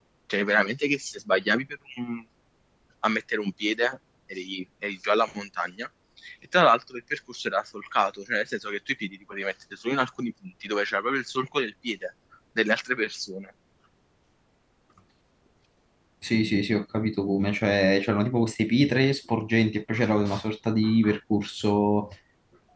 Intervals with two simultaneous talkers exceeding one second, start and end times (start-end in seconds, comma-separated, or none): none